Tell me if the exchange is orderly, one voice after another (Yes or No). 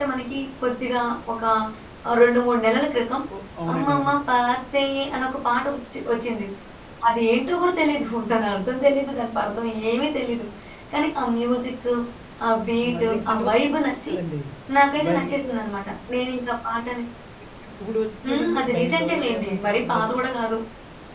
No